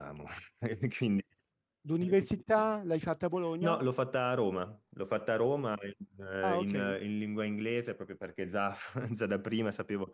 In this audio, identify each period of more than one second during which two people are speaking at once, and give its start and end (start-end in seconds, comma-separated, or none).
none